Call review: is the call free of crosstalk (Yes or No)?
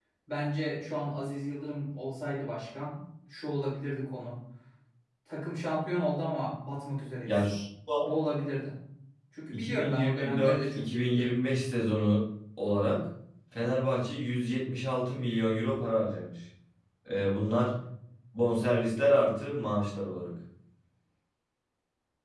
No